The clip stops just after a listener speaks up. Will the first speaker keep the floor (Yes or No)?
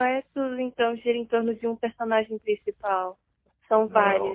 No